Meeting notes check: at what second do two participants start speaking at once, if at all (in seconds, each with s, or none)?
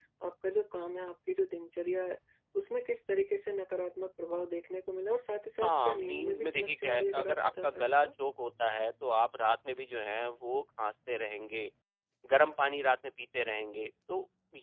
5.6 s